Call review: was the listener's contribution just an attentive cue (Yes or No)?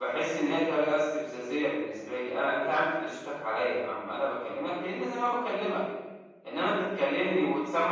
Yes